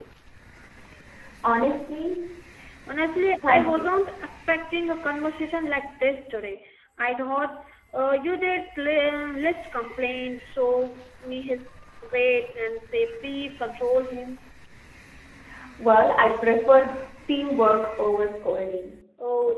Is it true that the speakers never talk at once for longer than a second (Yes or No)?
Yes